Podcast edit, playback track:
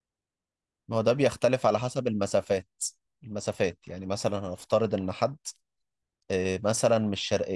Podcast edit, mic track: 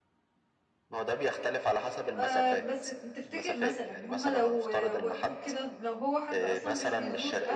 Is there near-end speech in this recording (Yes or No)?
Yes